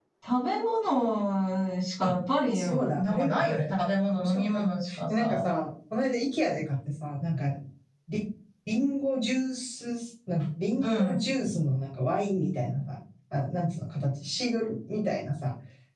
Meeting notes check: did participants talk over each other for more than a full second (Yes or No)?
Yes